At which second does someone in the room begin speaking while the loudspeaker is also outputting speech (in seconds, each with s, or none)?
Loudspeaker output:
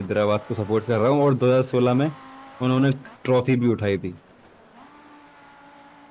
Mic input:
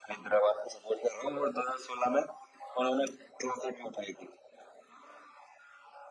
none